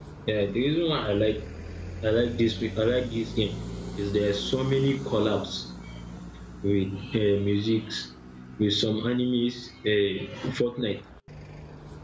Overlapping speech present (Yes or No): No